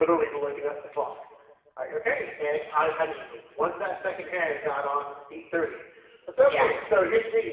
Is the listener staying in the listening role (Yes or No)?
Yes